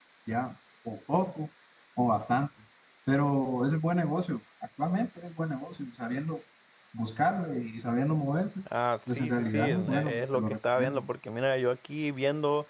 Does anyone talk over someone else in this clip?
Yes, from 9.1 s

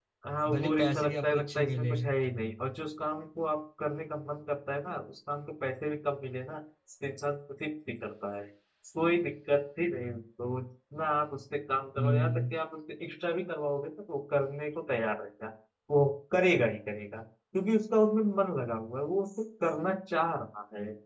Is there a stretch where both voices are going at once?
Yes, from 0.5 s

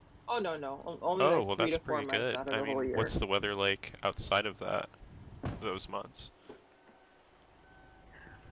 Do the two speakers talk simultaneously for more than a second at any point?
Yes, from 1.2 s

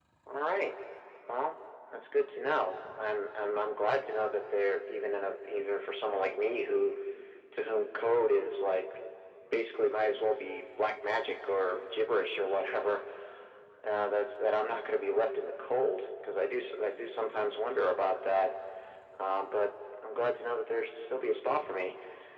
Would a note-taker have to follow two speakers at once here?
No

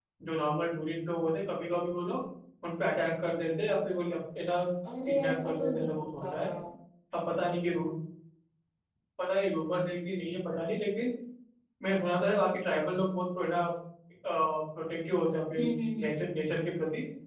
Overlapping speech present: Yes, from 5.0 s

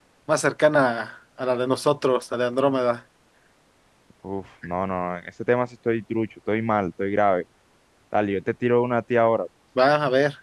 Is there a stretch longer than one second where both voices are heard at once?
No

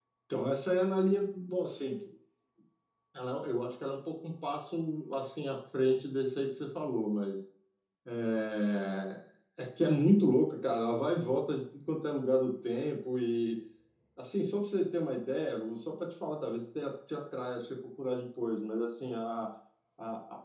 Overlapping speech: No

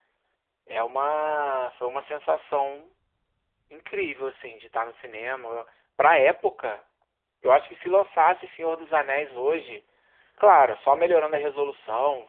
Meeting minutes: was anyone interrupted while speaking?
No

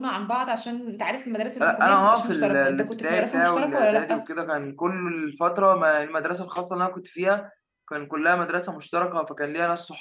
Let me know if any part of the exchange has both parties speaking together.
Yes, from 1.6 s

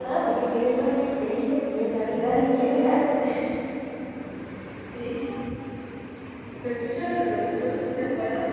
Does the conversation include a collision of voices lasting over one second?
No

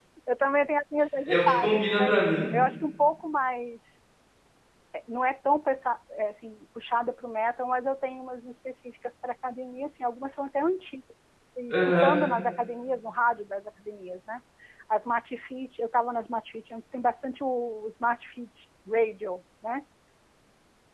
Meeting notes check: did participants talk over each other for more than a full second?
Yes, from 1.3 s

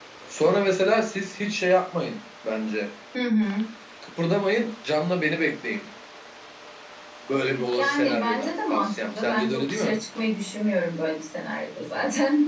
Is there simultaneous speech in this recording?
Yes, from 7.8 s

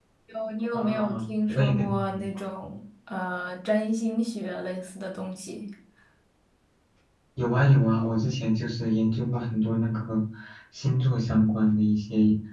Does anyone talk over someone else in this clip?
Yes, from 0.7 s

